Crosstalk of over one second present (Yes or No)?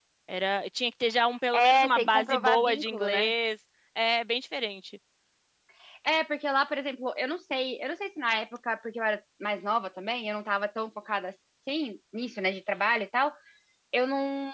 Yes